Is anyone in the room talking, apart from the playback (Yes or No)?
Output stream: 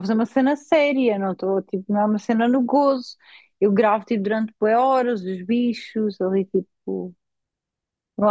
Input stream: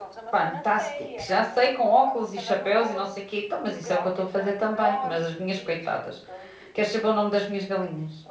Yes